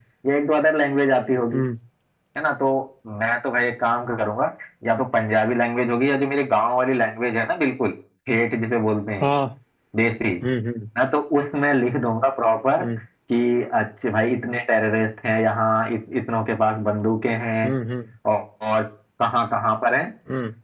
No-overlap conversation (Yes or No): Yes